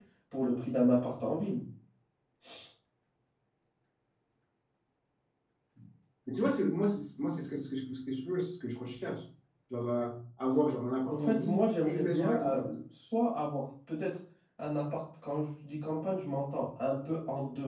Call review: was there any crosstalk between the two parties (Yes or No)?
Yes